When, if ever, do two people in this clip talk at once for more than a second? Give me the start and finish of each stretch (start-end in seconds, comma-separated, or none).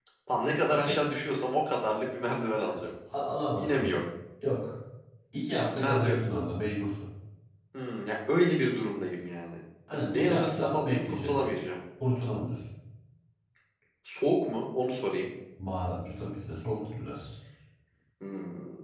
9.9-11.4